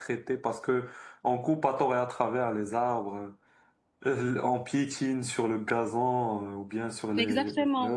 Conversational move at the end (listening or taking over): taking over